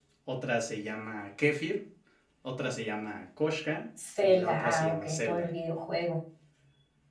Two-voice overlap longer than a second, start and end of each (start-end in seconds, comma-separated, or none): 4.2-5.5